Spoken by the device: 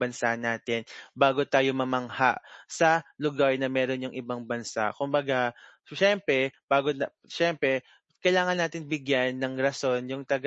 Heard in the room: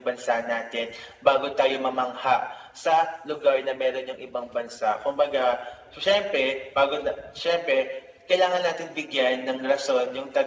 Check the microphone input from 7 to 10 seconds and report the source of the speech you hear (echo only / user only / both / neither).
echo only